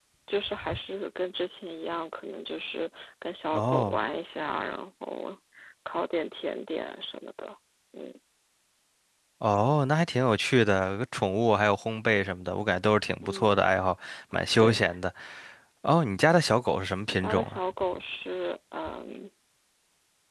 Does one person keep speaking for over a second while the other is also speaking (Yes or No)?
No